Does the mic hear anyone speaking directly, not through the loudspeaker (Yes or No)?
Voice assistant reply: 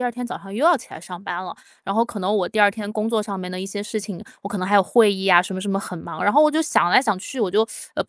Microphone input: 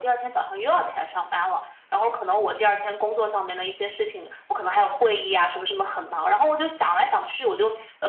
No